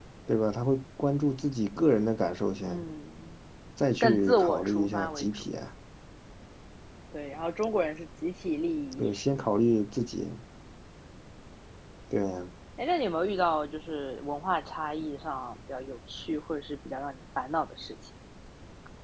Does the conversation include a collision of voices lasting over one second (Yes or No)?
Yes